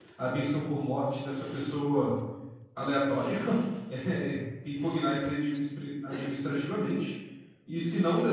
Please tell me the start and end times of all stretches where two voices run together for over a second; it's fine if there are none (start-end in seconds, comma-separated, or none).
none